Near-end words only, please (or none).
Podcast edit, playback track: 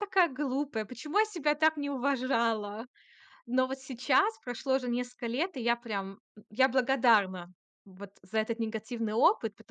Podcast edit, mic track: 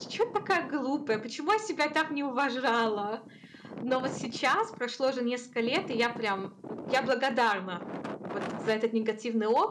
none